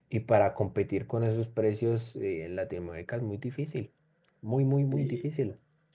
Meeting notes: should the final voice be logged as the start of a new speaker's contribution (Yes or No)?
Yes